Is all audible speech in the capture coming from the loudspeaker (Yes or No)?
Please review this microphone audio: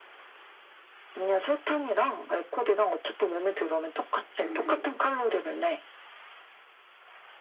No